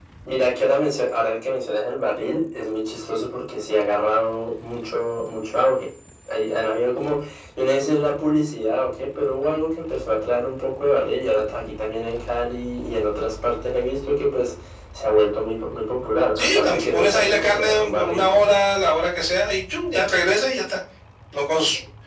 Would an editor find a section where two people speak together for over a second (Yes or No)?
Yes